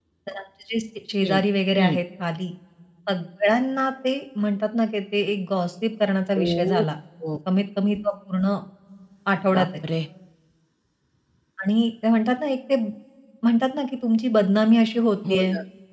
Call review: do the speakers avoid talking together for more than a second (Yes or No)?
Yes